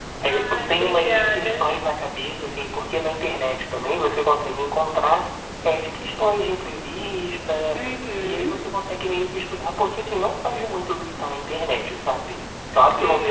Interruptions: present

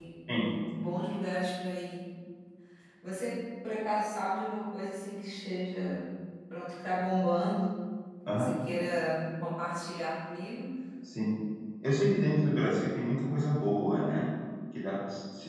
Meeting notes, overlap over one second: none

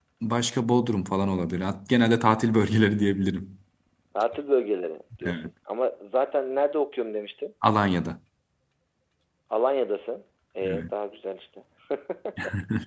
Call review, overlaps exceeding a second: none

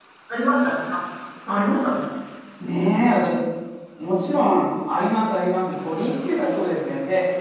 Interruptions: none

